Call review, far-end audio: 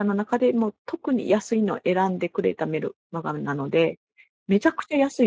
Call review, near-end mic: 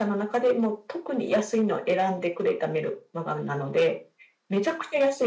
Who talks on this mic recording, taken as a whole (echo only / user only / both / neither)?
echo only